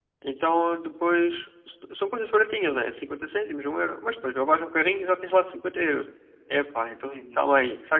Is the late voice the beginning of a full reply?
No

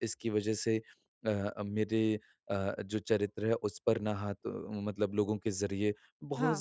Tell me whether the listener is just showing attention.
Yes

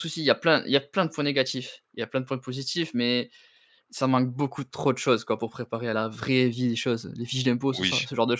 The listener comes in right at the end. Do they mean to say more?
Yes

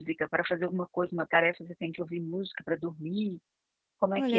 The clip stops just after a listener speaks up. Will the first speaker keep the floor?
No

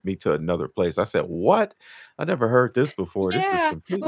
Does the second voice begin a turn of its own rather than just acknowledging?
Yes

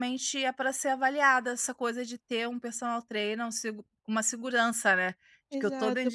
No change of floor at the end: No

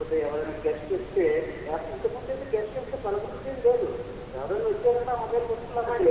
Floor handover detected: Yes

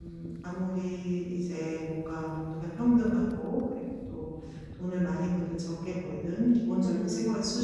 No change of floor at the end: Yes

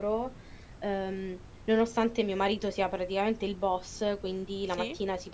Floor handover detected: No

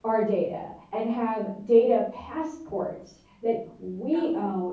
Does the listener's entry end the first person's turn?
No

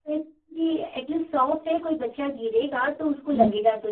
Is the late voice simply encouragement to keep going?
No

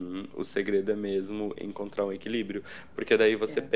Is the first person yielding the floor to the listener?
No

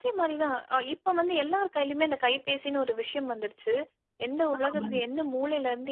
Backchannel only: Yes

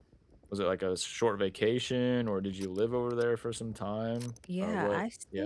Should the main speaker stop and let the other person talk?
Yes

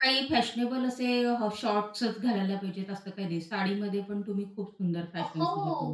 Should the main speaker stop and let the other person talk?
Yes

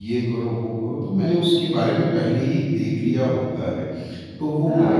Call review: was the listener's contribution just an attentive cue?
Yes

